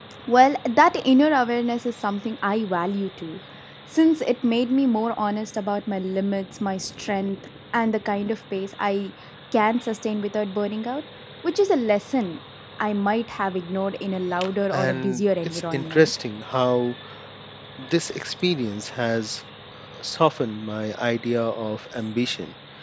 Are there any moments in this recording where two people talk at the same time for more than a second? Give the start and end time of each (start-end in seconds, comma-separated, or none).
14.7-16.1